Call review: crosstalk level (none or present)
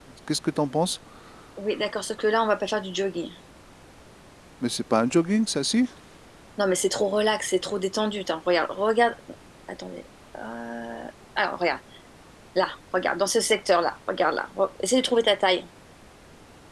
none